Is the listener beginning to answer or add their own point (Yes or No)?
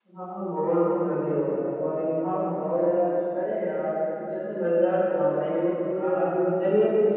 Yes